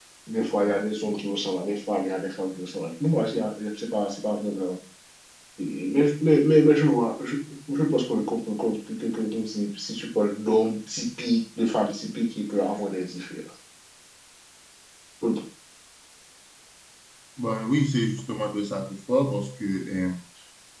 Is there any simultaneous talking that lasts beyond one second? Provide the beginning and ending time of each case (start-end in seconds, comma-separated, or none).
none